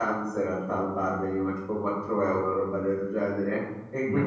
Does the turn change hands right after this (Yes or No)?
No